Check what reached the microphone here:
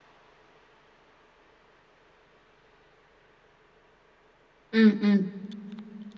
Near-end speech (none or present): present